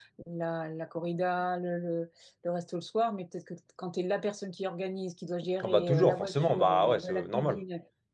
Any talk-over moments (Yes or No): Yes